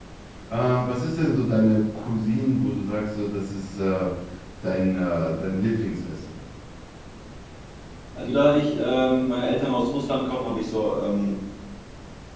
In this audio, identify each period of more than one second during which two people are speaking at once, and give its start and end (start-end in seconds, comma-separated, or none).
none